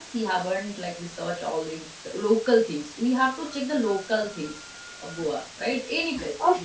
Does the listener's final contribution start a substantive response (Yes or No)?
Yes